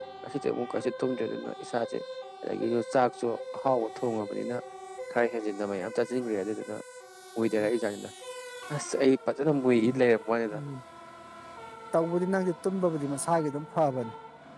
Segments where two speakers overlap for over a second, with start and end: none

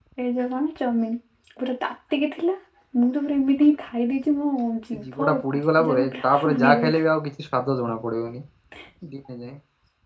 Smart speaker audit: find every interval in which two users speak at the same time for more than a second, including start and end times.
4.9-6.9

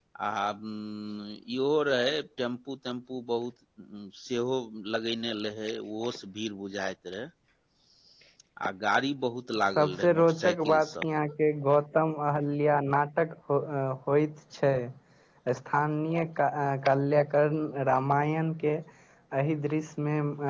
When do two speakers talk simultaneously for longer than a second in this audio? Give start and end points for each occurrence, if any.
9.8-11.0

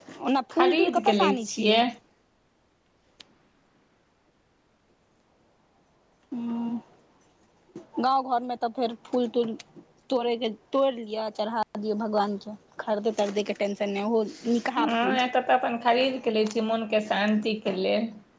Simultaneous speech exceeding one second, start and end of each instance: 0.6-1.8

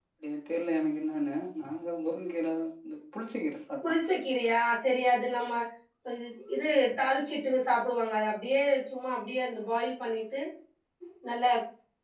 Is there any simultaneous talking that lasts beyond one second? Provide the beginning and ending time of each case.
none

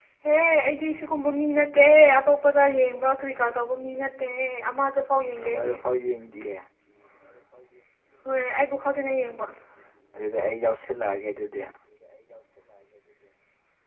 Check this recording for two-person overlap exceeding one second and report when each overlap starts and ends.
none

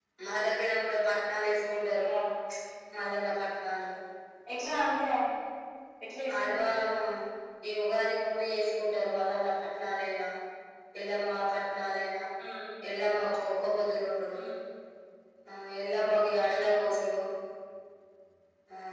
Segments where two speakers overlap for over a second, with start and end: none

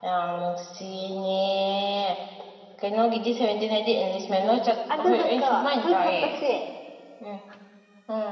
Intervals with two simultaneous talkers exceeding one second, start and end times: 5.0-6.3

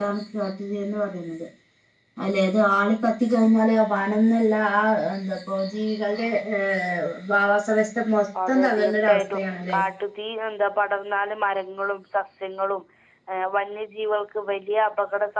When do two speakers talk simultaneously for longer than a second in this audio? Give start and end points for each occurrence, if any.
8.5-9.8

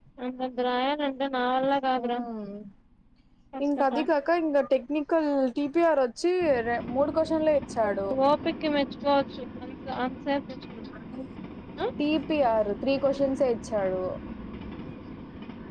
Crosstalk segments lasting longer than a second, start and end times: none

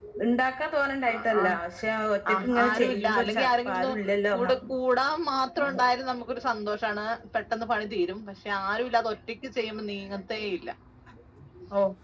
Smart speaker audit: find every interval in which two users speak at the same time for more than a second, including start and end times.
2.3-3.9

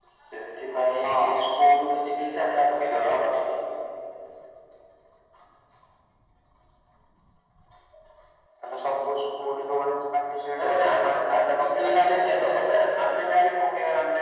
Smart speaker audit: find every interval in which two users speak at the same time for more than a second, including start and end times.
10.6-12.7

